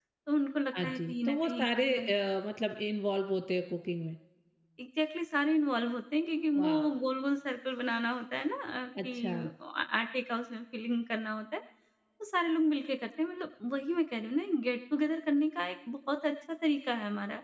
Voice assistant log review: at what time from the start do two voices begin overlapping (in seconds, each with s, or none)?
0.8 s